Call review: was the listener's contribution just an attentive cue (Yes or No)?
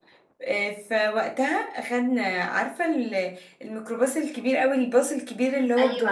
No